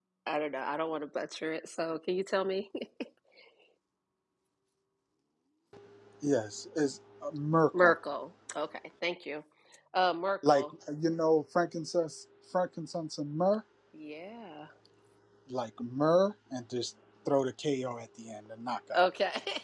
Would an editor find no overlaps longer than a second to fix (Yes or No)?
Yes